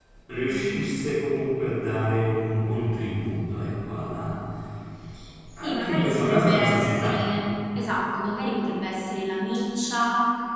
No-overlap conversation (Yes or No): No